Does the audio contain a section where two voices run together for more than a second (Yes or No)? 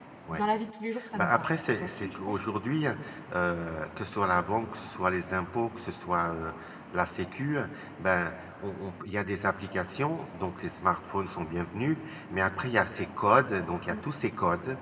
Yes